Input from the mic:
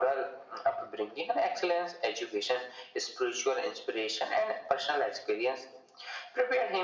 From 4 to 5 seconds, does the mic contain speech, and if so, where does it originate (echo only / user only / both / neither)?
echo only